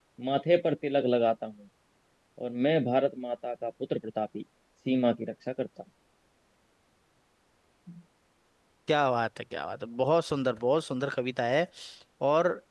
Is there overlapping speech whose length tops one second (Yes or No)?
No